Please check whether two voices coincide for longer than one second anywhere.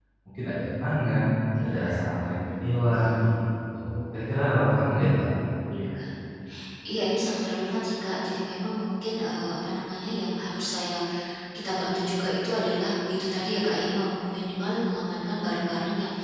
No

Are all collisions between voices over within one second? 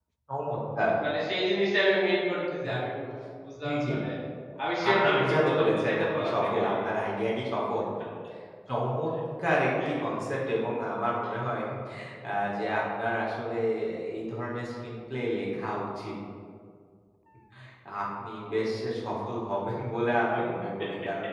No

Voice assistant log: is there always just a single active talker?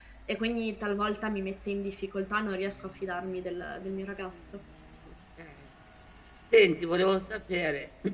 Yes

